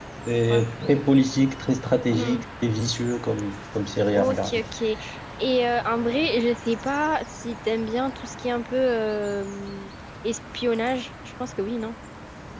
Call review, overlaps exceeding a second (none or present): none